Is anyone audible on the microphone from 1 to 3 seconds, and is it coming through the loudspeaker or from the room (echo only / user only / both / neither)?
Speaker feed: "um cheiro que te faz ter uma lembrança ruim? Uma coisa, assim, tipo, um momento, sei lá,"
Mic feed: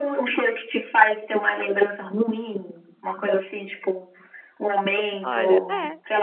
echo only